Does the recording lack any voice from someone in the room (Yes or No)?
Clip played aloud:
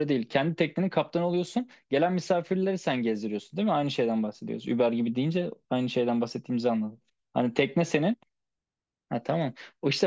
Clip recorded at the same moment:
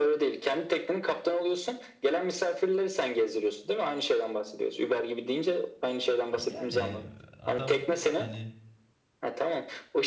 No